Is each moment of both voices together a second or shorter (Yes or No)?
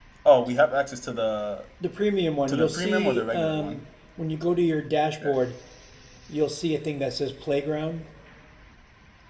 No